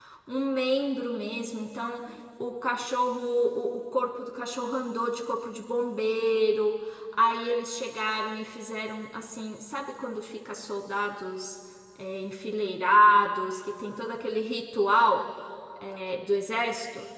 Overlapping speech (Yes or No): No